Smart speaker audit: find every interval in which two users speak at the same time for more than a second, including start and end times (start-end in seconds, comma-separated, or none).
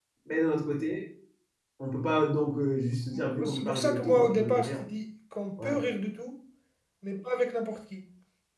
3.3-4.8